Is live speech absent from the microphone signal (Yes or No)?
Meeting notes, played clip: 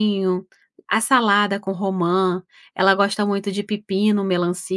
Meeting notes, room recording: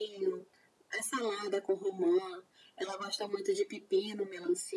Yes